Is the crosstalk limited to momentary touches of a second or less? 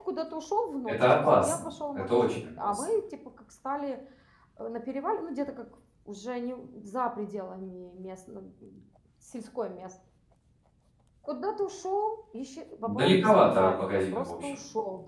No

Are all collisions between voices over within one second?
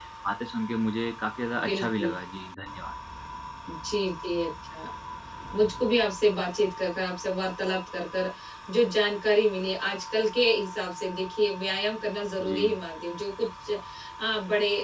Yes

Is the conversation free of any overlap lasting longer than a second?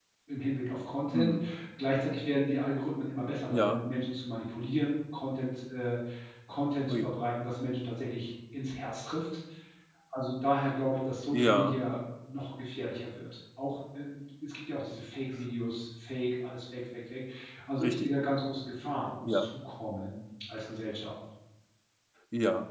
Yes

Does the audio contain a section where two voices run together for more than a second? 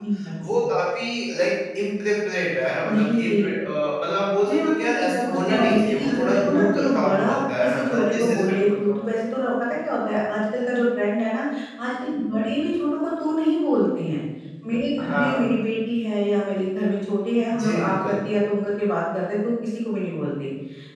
Yes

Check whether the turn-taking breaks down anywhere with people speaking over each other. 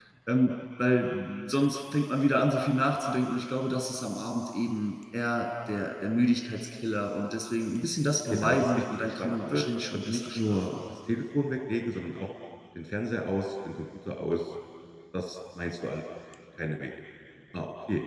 Yes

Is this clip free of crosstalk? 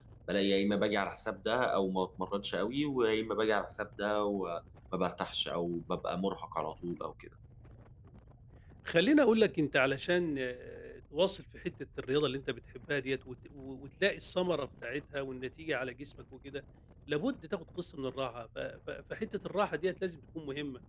Yes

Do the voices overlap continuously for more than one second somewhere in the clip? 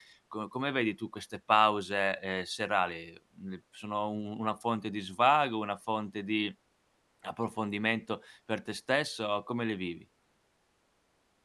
No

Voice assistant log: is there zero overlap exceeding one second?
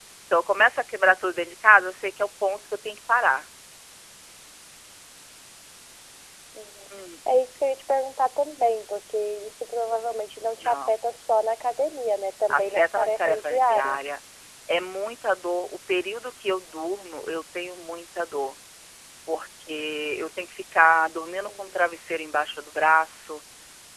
No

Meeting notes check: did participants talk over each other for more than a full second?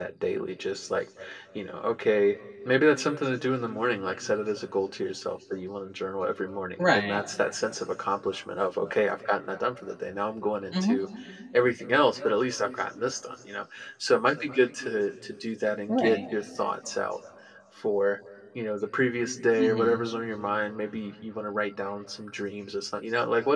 No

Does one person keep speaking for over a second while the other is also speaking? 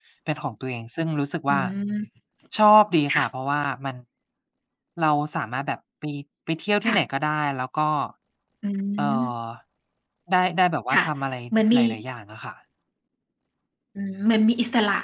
No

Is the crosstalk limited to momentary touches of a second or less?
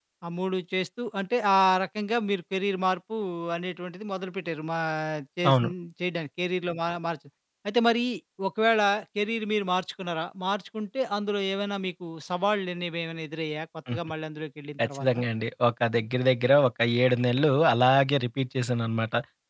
Yes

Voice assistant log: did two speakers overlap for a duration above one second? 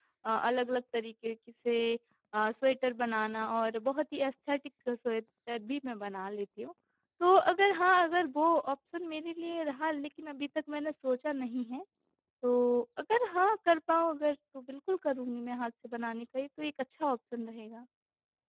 No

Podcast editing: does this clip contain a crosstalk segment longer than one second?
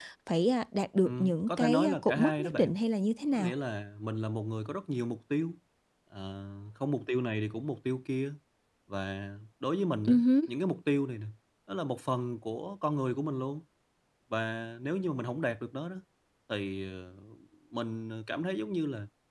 Yes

